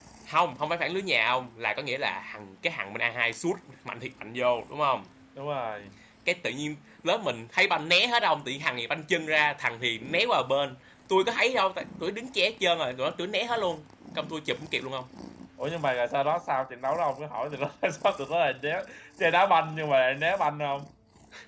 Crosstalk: none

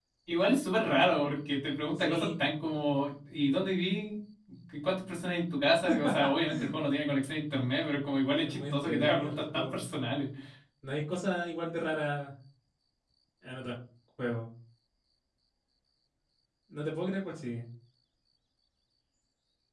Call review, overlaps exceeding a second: present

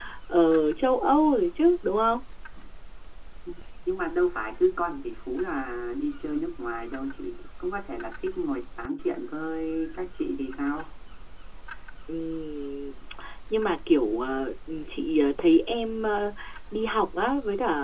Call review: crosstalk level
none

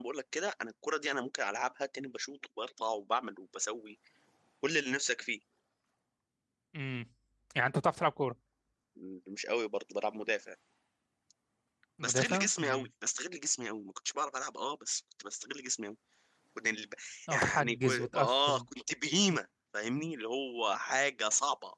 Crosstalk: present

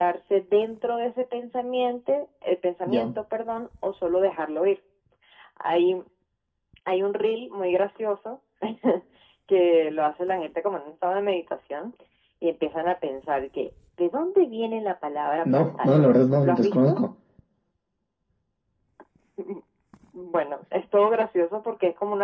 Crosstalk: present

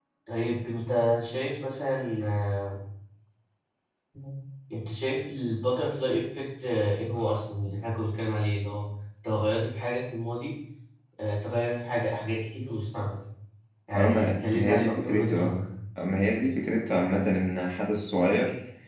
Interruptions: present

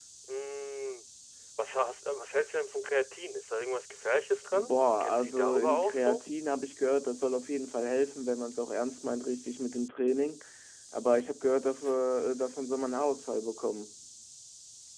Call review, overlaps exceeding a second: present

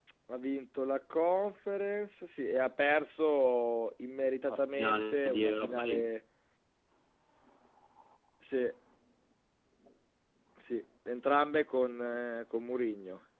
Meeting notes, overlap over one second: present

